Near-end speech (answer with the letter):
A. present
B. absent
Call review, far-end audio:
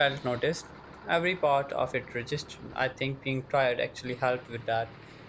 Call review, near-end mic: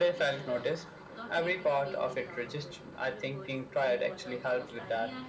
A